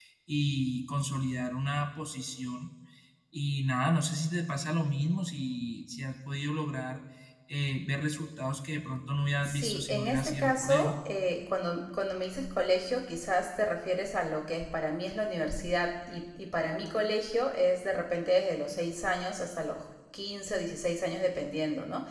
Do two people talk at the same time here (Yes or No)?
Yes